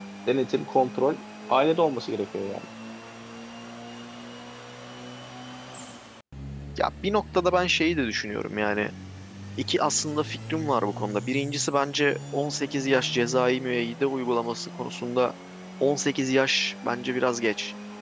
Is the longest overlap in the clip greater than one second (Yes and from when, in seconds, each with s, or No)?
No